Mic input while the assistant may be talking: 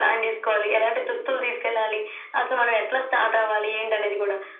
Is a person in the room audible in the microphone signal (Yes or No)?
No